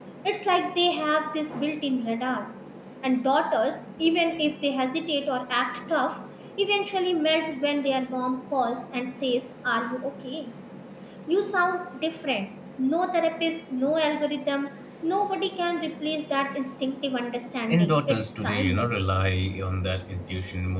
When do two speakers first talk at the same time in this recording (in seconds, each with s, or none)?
17.7 s